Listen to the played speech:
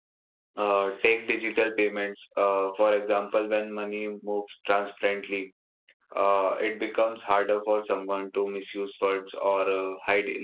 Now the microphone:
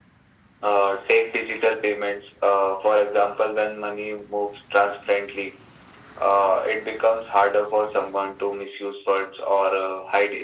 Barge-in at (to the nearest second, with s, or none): none